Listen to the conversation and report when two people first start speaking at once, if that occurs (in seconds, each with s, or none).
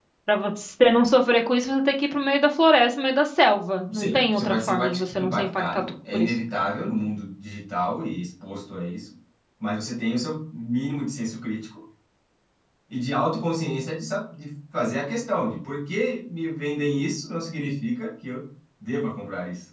3.9 s